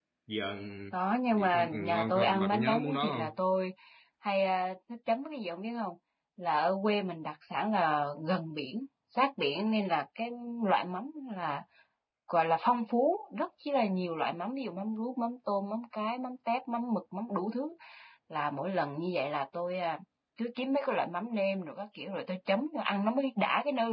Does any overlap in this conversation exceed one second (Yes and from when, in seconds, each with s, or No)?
Yes, from 1.3 s